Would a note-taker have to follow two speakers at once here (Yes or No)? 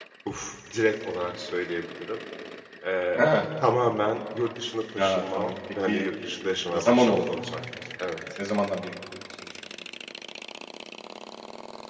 Yes